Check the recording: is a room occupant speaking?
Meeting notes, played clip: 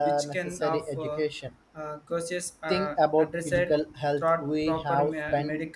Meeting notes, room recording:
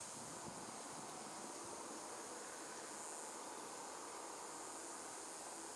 No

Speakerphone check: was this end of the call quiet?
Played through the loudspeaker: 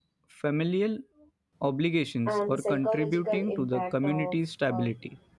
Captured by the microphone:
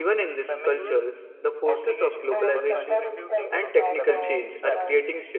No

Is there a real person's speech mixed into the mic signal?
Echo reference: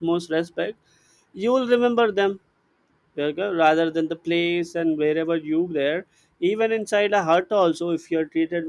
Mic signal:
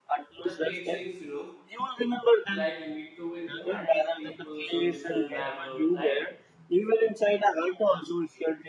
Yes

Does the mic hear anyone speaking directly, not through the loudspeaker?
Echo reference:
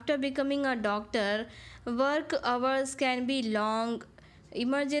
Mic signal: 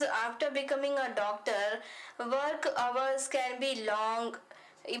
No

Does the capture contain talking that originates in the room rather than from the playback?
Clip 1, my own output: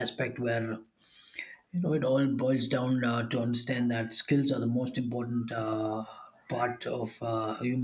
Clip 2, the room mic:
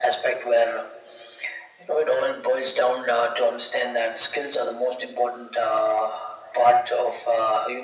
No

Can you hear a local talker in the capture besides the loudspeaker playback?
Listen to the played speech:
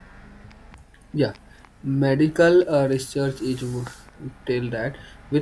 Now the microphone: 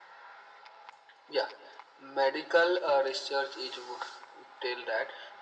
No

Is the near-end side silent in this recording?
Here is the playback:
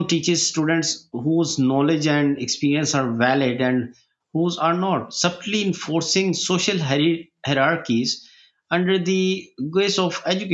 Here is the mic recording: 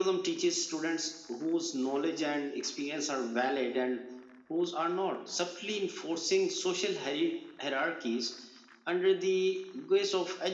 Yes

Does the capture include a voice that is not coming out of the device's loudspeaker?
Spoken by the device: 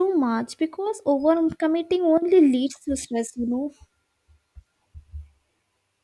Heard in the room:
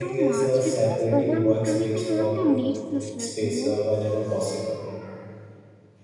Yes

